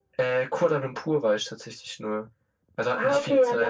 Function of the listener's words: taking over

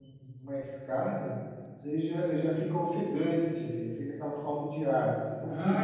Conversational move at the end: taking over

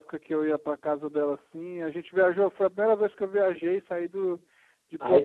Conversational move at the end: taking over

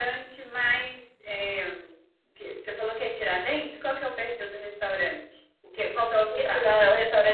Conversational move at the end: taking over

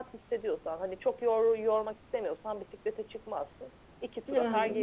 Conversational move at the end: taking over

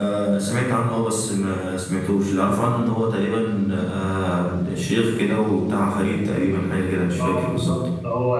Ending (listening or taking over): taking over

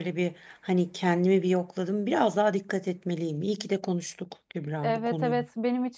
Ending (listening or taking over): taking over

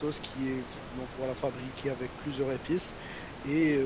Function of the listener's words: listening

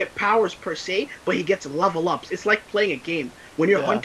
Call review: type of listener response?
listening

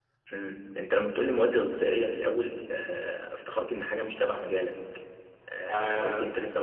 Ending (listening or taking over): listening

